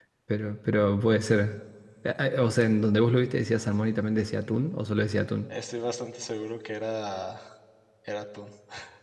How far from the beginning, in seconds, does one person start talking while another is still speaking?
none

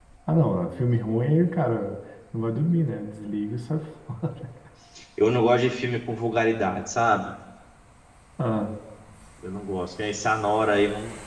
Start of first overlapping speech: none

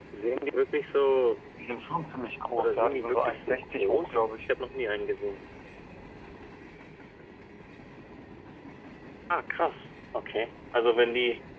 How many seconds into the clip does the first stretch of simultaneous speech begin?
3 s

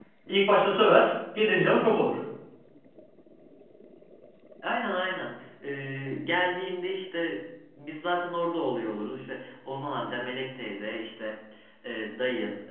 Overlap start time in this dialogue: none

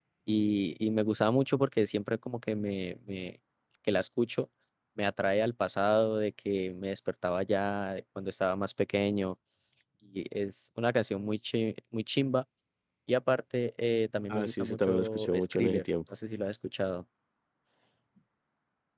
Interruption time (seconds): 14 s

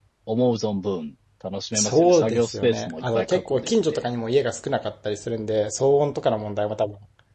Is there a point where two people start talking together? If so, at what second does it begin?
2 s

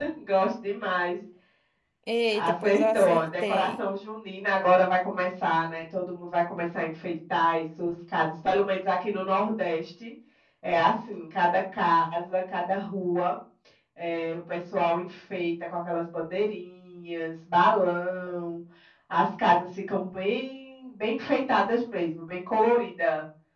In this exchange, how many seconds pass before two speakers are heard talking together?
2 s

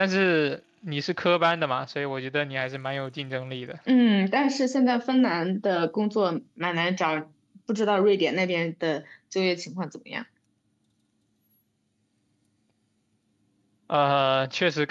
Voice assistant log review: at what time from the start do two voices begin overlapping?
none

